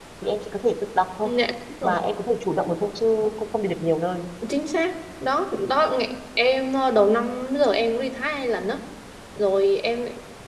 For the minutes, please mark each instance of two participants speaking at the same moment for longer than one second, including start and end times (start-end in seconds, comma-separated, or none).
none